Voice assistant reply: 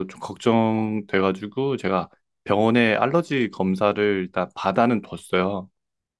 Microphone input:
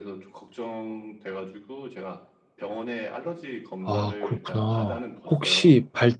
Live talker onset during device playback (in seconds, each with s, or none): 3.8 s